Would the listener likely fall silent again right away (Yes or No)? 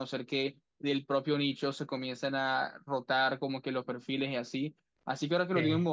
Yes